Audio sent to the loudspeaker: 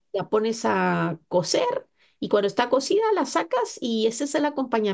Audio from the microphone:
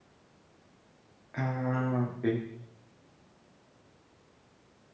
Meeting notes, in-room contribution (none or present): present